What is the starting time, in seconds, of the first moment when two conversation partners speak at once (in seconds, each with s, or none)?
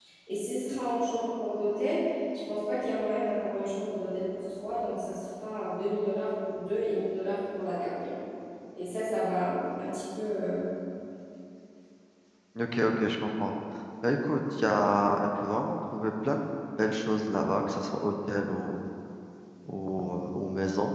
none